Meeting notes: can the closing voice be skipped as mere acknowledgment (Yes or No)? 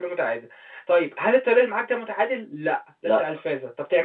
Yes